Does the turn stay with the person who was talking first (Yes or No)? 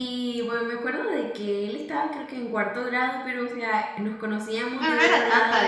No